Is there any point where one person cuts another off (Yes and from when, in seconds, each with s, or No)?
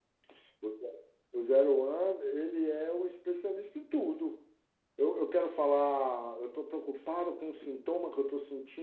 No